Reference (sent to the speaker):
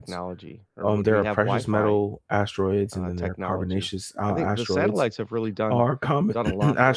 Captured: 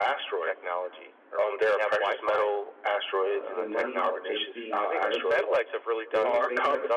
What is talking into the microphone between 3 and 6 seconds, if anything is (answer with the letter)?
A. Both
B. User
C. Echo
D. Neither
A